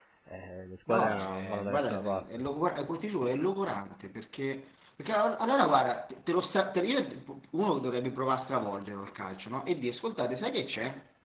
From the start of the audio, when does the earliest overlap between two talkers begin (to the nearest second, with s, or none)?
1 s